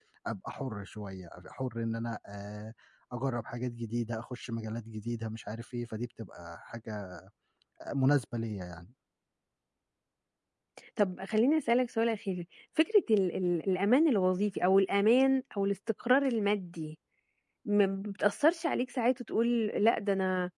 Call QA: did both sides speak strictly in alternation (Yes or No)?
Yes